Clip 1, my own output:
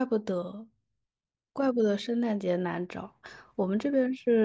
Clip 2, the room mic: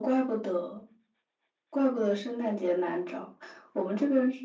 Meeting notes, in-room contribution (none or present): none